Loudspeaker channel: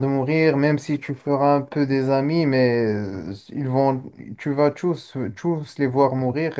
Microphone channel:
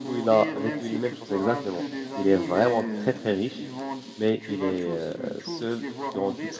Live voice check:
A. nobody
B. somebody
B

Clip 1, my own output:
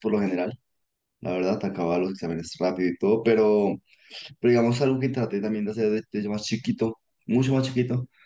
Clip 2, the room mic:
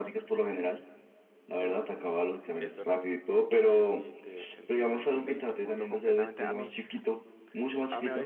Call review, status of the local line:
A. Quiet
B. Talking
B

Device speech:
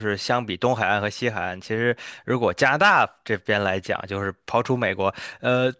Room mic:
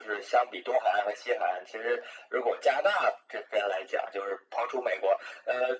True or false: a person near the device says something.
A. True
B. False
B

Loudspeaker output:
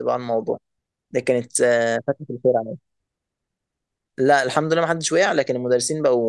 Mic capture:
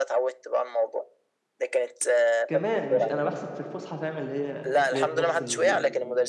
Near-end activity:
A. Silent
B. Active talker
B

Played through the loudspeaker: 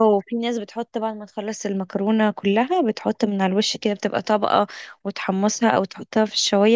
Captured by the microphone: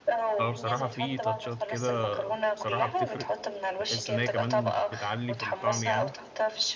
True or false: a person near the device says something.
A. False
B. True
B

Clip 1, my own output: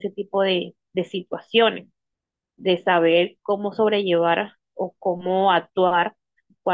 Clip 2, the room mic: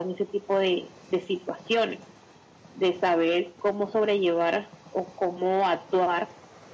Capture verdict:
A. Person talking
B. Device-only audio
B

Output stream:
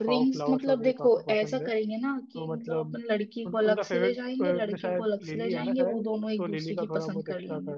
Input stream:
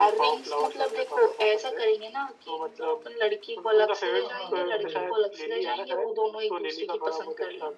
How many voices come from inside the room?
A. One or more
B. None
A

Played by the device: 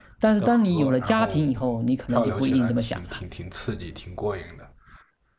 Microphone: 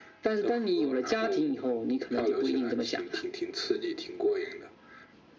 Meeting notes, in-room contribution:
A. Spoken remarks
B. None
B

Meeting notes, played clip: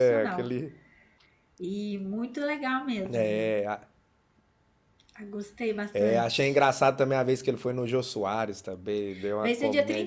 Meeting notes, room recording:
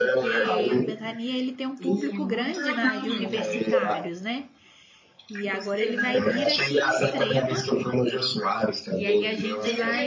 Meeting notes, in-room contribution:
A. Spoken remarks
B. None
A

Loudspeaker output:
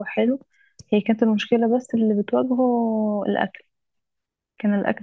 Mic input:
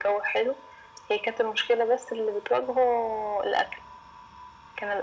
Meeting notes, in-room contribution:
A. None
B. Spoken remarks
A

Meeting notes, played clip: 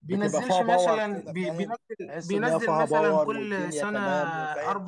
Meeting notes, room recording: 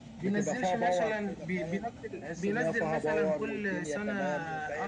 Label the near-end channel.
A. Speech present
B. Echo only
B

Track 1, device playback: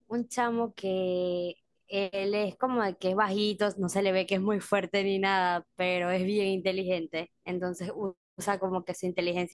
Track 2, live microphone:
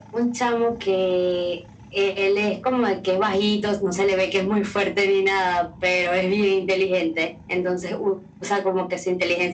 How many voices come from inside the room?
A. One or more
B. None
B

